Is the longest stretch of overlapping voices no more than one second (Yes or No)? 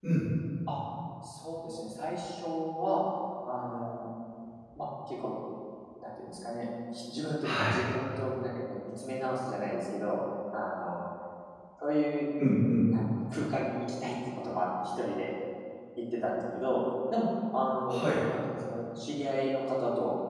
Yes